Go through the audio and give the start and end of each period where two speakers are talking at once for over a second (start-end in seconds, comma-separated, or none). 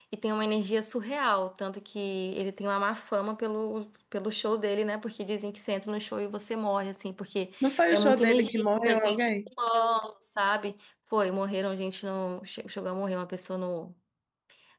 7.9-9.5